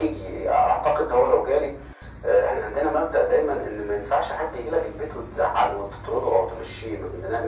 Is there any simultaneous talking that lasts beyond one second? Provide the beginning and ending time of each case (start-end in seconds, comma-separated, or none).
none